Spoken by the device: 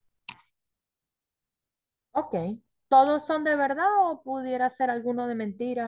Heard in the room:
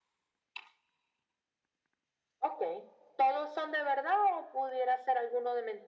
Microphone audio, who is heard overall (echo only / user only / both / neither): echo only